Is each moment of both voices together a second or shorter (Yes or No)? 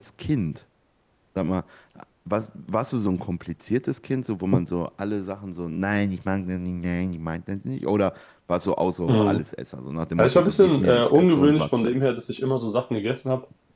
No